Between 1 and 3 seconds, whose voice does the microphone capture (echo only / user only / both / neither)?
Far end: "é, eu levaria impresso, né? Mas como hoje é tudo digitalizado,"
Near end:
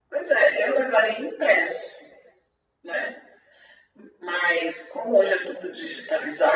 echo only